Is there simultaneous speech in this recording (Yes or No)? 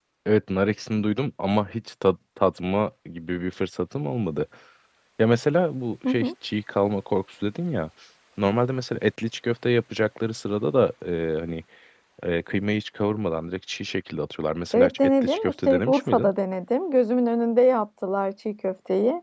Yes